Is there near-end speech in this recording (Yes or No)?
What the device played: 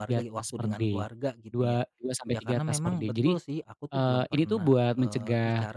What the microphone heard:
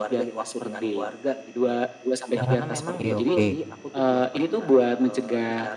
Yes